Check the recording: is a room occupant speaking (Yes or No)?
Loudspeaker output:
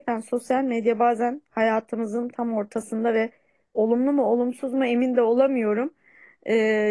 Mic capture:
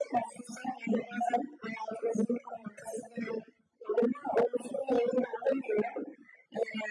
No